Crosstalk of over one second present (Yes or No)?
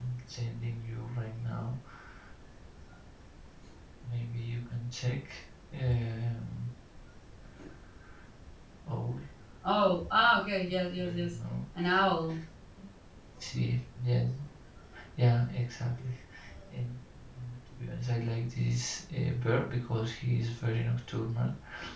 No